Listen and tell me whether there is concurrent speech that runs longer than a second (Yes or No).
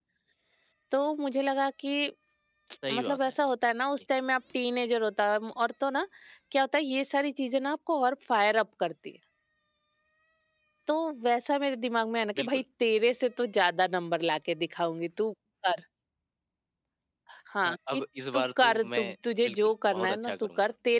Yes